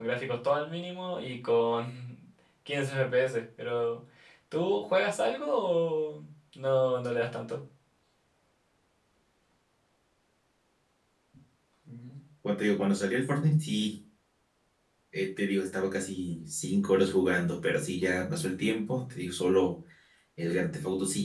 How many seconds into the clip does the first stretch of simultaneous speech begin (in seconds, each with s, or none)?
none